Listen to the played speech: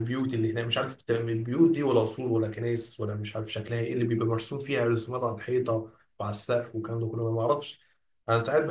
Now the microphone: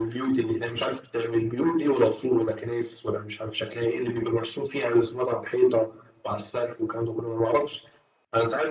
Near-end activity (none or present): none